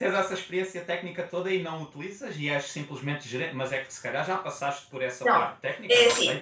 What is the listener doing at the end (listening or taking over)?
taking over